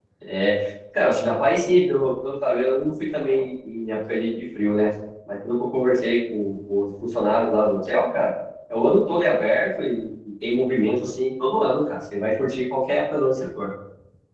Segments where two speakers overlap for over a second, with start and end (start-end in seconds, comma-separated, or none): none